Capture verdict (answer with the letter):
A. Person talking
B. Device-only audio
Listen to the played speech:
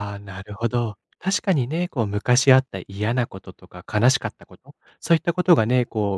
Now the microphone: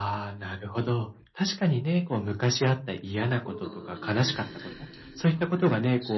A